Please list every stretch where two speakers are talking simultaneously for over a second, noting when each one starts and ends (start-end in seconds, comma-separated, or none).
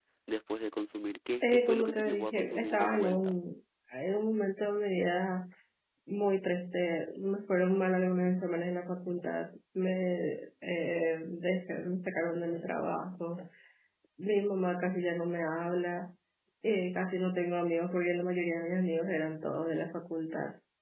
1.4-3.4